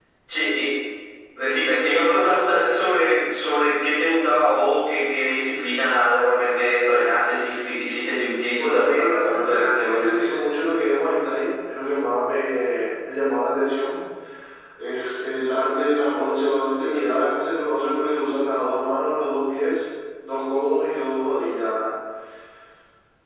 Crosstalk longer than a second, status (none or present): present